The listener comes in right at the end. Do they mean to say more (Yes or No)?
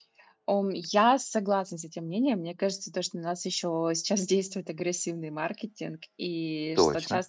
No